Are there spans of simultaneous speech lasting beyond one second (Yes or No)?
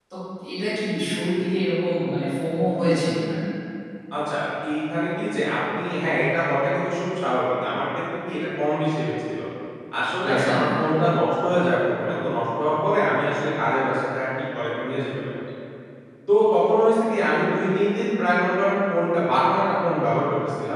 No